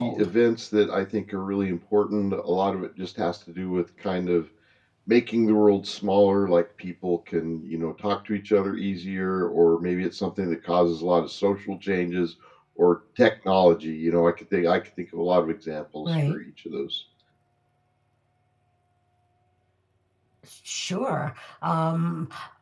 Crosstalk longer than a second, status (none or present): none